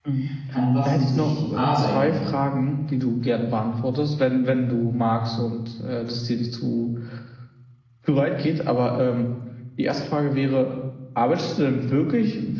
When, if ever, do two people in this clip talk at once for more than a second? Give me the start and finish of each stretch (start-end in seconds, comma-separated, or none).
0.8-2.2